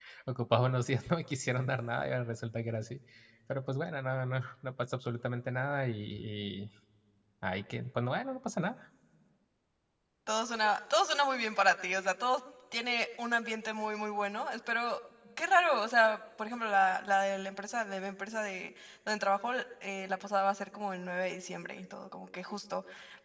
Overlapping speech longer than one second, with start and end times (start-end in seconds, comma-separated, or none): none